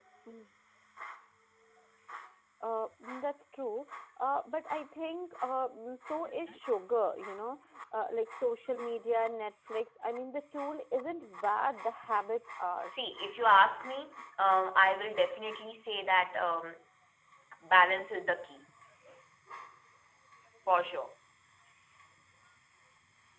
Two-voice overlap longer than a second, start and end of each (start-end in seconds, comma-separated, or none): none